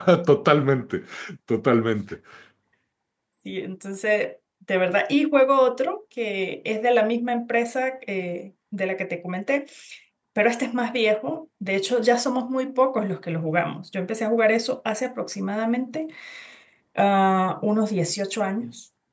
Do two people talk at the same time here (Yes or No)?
No